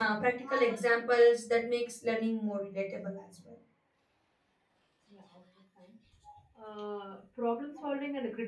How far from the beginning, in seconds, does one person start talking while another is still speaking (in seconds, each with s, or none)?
none